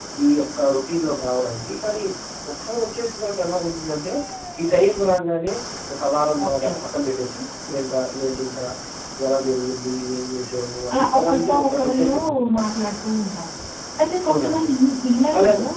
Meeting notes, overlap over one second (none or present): present